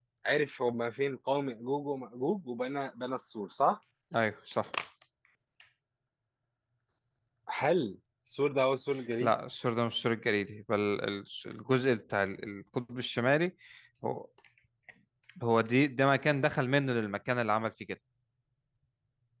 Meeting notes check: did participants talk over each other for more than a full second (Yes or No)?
No